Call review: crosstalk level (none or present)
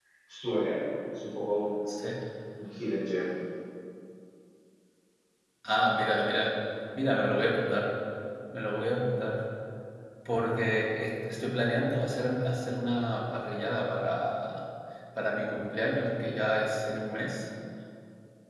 none